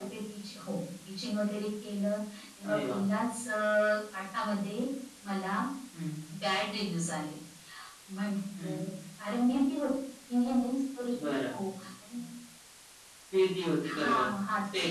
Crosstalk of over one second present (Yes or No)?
No